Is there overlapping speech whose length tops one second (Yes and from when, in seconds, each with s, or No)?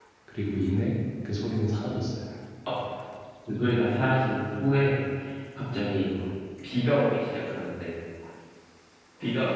No